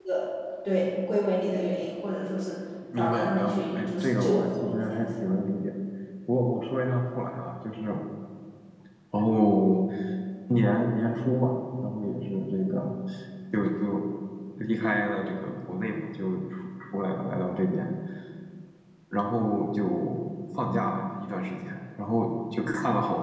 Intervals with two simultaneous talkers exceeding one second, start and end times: 2.9-5.1

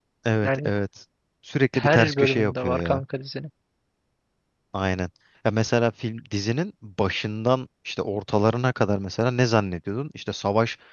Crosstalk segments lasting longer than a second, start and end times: 1.7-3.0

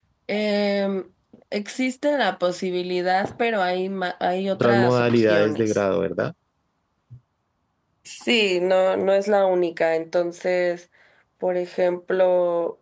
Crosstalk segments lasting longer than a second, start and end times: 4.5-5.8

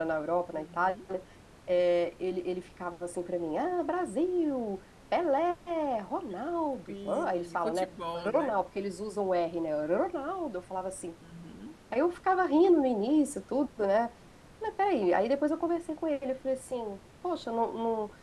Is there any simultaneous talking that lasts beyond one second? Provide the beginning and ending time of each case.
6.9-8.5

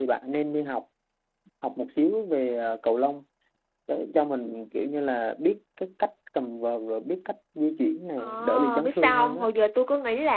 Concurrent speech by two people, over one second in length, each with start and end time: 8.2-9.5

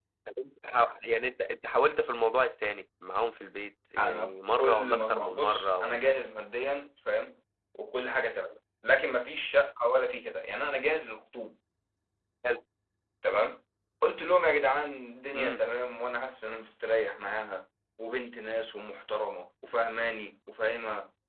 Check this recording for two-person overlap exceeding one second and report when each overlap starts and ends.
4.0-6.2

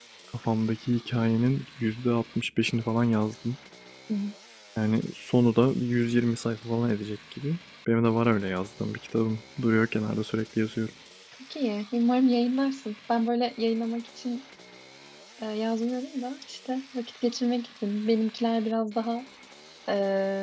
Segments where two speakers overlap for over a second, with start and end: none

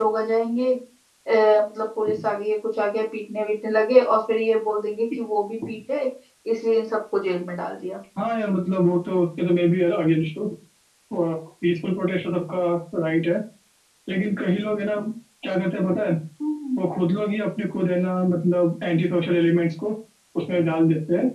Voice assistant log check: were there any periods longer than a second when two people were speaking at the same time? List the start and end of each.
none

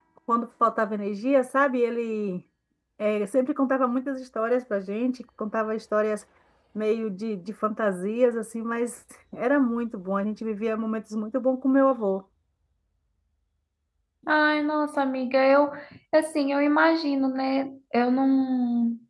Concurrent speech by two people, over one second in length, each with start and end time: none

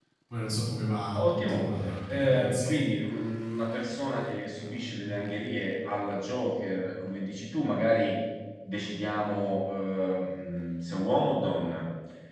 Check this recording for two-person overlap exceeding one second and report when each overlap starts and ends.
1.1-2.8

